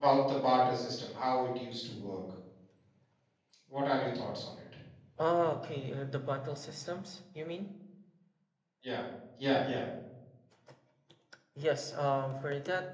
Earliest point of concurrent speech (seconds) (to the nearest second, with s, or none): none